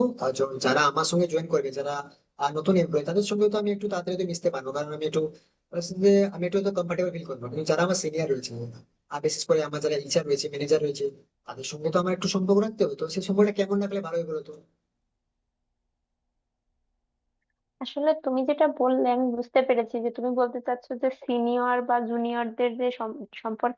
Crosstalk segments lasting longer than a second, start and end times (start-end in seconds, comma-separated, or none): none